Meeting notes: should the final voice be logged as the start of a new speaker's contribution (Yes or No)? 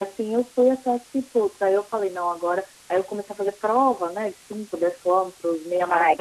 Yes